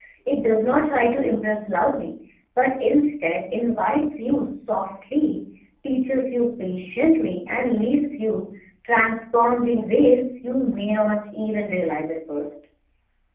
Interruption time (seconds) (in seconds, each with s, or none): none